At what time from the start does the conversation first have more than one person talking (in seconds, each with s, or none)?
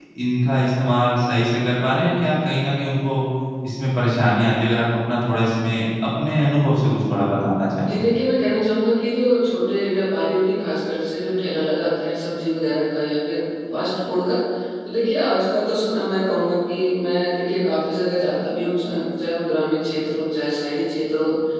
none